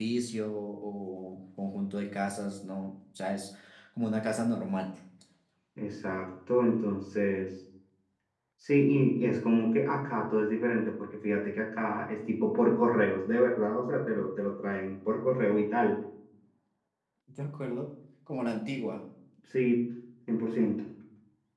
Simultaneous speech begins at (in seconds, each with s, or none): none